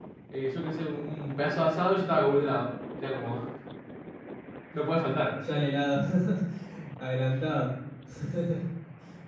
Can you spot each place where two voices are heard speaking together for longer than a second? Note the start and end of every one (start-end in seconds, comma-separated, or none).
none